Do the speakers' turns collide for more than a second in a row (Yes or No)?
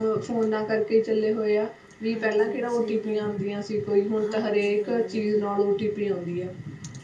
Yes